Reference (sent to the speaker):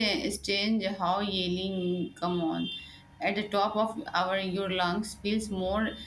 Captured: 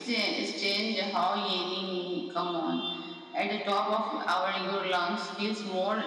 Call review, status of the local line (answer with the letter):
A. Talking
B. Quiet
B